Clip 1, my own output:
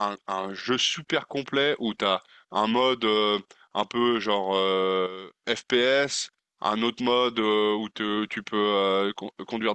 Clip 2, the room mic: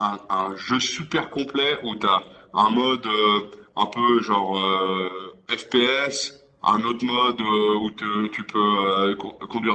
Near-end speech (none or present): none